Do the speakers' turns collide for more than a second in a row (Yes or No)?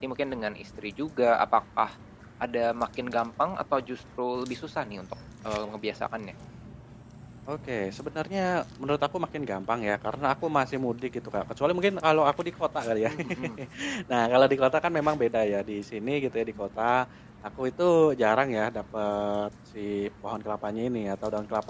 No